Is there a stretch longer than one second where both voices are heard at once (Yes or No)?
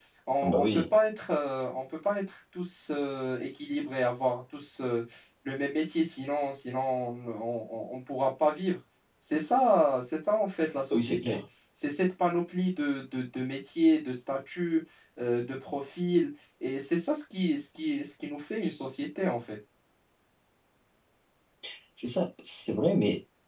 No